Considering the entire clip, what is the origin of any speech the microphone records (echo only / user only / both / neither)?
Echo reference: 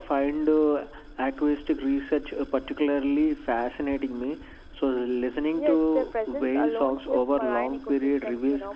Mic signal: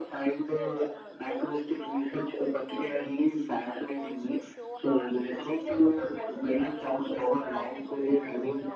both